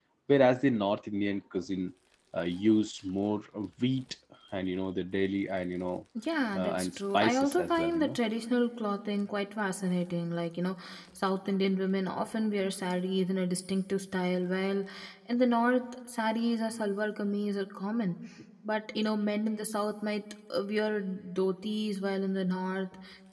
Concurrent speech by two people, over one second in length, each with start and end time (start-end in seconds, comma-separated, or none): 6.5-8.2